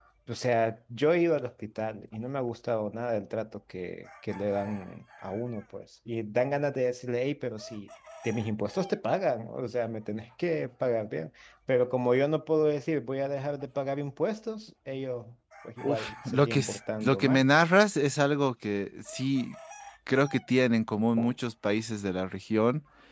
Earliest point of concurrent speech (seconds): 15.8 s

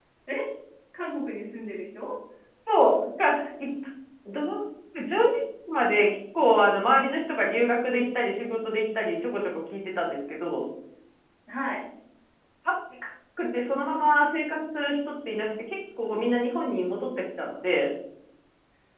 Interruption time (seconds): none

